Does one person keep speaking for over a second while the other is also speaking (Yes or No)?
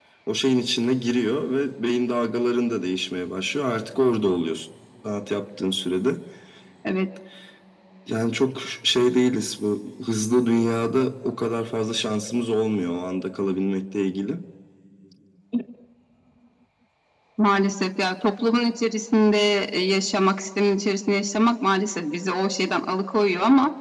No